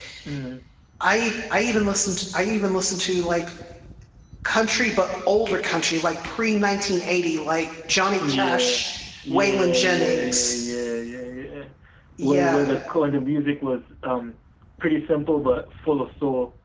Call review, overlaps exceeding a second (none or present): present